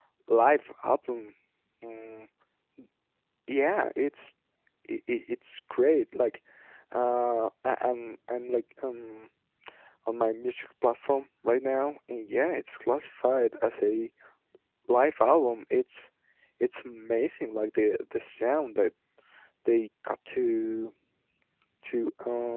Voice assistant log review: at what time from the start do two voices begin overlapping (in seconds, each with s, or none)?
none